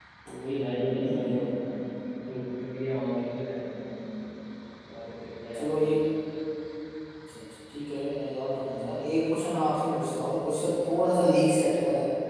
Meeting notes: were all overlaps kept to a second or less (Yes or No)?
Yes